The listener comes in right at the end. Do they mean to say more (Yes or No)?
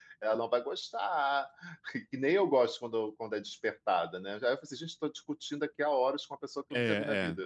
Yes